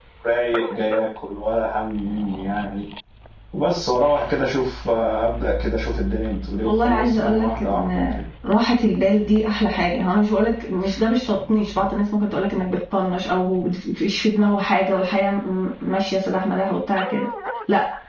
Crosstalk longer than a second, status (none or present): present